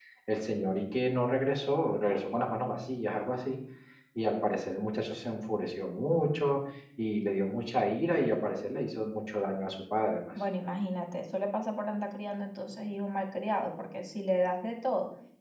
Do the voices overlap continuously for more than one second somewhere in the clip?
No

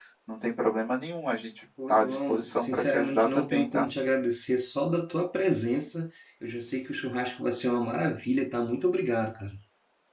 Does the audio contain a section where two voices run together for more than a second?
Yes, from 1.8 s

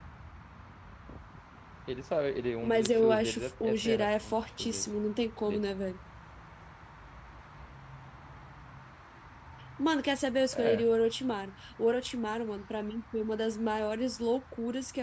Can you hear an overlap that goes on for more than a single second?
Yes, from 2.6 s

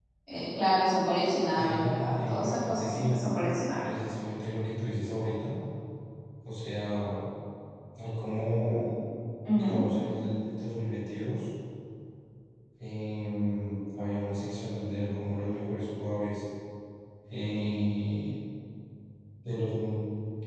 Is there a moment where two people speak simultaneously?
Yes, from 1.5 s

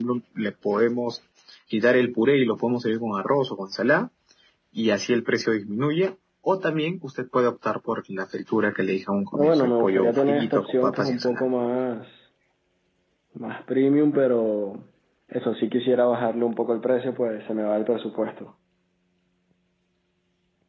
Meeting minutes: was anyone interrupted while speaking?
Yes, from 9.3 s

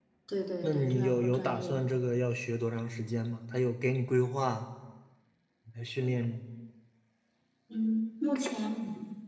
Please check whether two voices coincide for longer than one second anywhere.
Yes, from 0.6 s

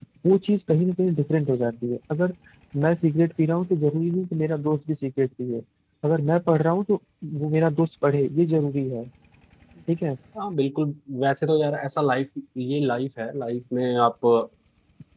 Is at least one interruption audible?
No

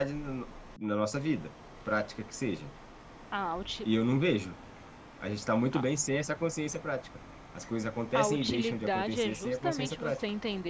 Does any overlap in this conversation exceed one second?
Yes, from 8.2 s

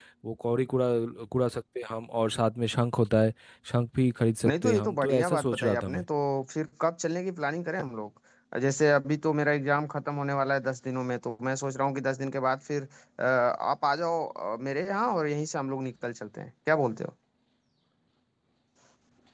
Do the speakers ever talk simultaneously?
Yes, from 4.5 s

